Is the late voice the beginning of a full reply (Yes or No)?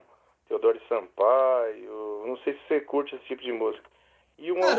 Yes